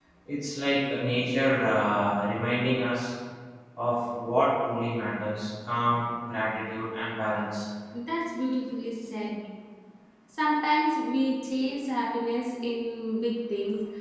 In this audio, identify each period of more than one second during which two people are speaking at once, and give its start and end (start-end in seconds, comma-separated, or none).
none